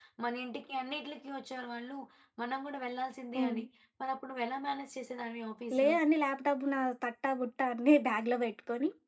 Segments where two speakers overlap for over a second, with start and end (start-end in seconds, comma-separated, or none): none